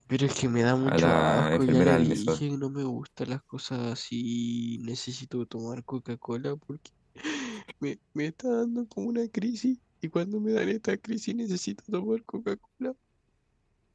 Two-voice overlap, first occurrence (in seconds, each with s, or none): 0.8 s